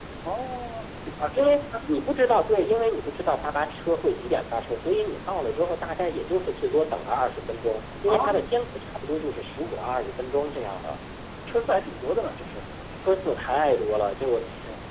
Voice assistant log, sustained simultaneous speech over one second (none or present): none